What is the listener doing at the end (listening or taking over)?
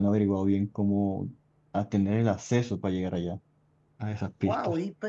taking over